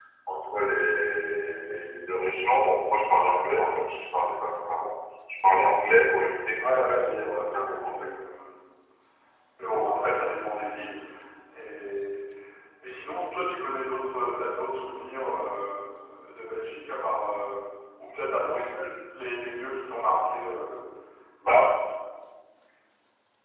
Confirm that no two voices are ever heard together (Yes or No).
No